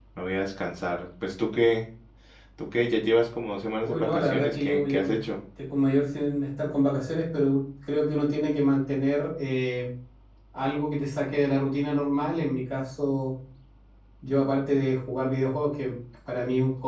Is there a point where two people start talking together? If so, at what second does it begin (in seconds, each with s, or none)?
3.8 s